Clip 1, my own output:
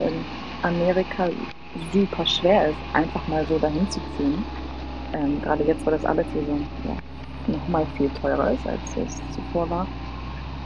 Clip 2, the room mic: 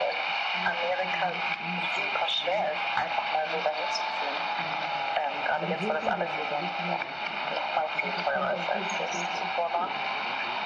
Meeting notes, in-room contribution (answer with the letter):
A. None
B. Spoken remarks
B